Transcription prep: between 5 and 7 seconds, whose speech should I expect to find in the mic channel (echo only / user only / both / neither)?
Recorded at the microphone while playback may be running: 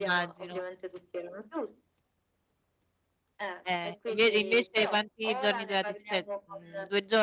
both